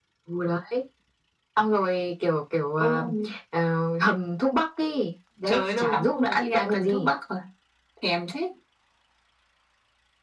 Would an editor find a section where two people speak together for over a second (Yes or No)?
Yes